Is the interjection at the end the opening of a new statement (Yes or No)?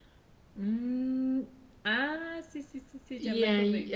Yes